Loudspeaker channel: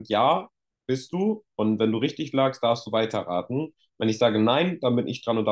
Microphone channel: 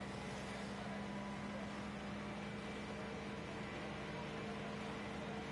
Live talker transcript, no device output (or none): none